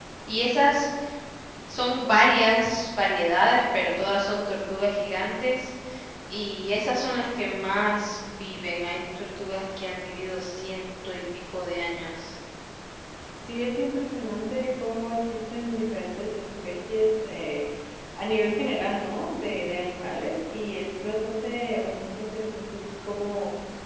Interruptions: none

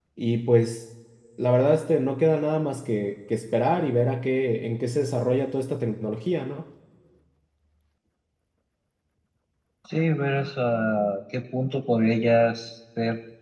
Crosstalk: none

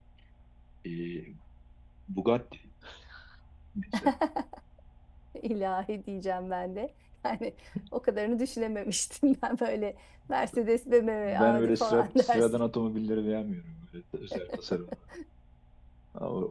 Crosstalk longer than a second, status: present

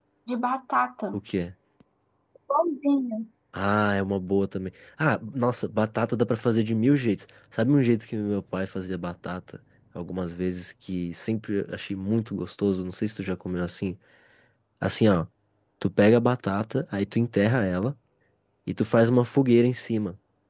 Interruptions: none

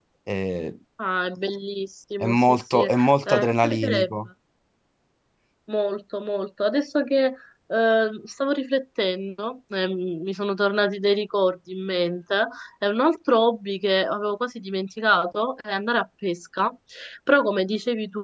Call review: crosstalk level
present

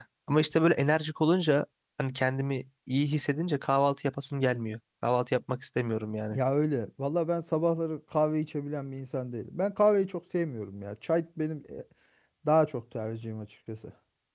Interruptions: none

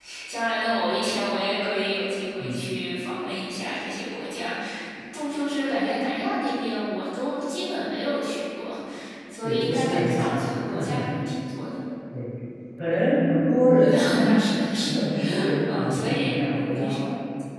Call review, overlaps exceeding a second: present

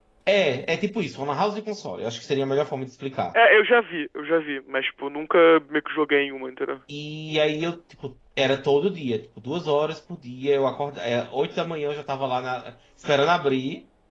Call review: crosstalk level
none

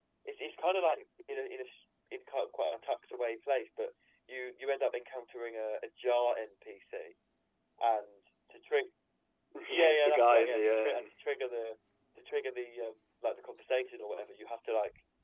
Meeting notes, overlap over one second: present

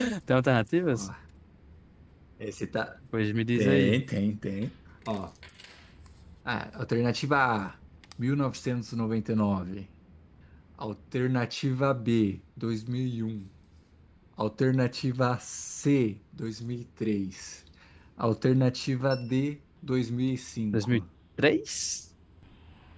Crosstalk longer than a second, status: none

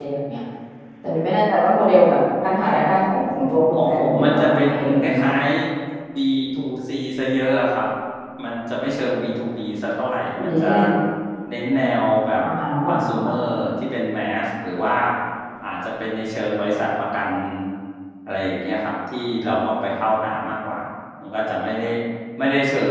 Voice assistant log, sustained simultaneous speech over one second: present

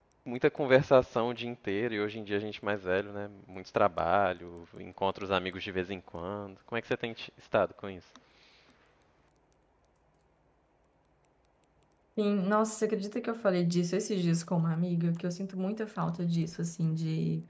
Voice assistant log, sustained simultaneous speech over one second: none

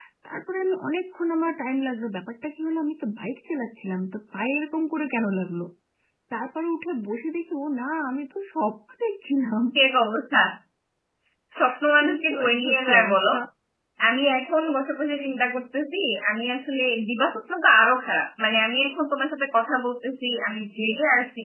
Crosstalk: present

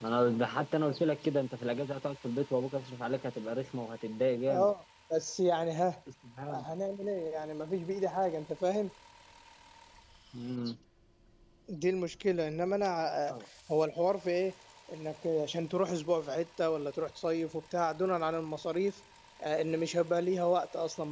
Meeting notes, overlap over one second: none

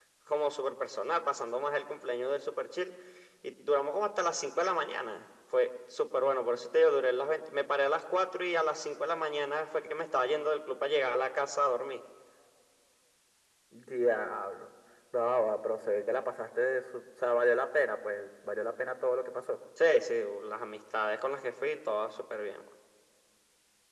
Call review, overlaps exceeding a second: none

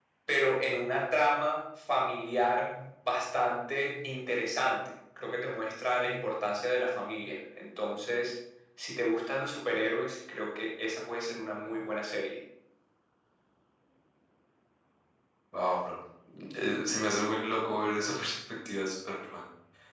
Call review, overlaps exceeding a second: none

